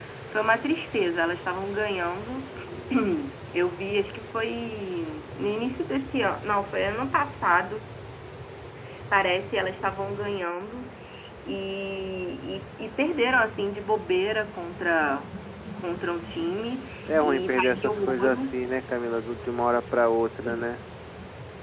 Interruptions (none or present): present